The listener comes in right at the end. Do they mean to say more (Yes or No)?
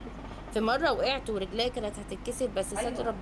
Yes